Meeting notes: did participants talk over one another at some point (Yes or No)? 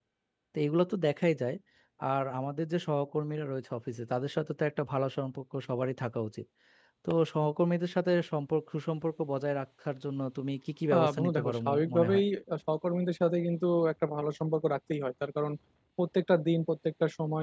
Yes